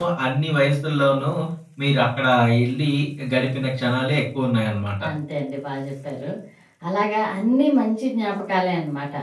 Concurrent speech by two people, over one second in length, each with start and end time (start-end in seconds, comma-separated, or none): none